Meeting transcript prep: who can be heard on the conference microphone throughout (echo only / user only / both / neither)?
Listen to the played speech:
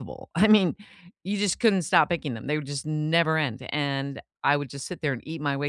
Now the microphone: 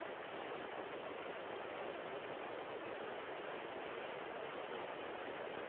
neither